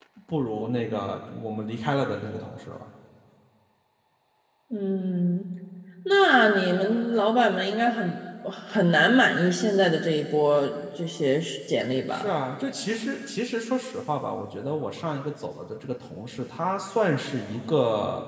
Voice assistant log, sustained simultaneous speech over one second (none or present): none